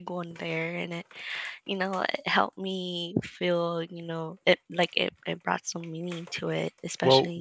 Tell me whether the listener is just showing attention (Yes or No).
No